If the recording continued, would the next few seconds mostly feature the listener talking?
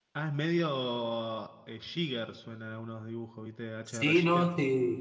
Yes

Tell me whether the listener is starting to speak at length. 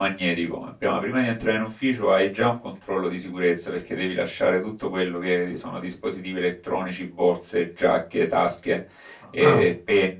No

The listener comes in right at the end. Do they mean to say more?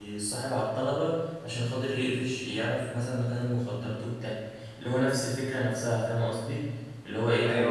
No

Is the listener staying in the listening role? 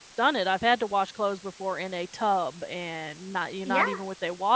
Yes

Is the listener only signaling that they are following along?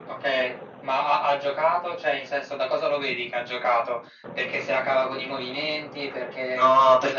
No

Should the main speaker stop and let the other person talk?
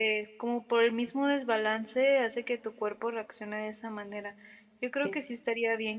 No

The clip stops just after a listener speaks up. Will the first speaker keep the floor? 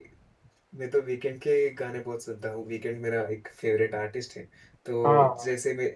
Yes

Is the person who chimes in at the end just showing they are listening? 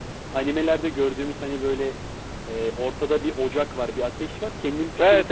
No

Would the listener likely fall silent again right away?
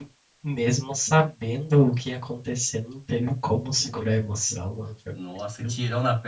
No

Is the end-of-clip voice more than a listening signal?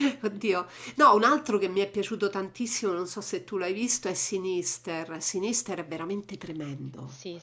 Yes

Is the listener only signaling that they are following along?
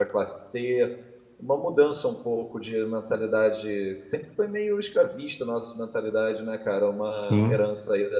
Yes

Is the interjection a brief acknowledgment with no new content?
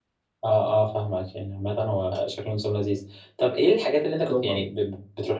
Yes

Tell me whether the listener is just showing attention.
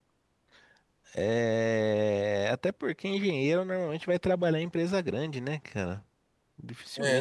Yes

